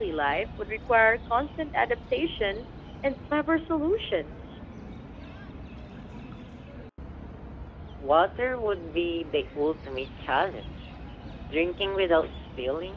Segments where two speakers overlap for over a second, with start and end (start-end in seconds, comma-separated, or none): none